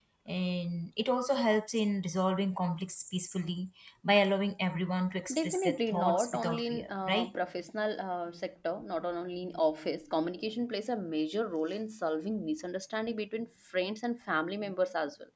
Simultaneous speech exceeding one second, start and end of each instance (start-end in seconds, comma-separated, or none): 5.3-7.3